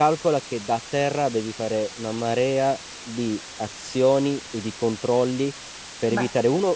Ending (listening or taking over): taking over